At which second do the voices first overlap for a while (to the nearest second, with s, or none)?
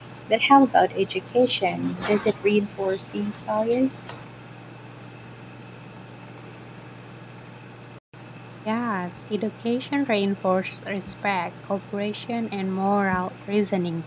none